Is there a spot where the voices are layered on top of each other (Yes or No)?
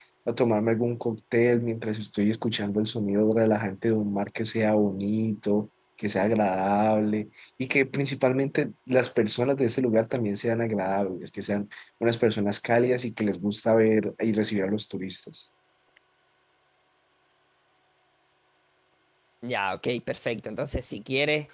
No